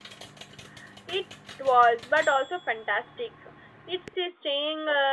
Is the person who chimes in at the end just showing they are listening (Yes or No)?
Yes